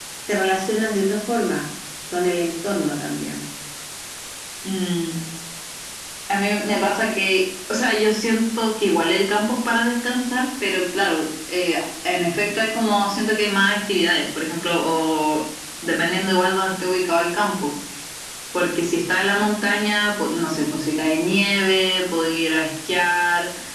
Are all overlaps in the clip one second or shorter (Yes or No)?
Yes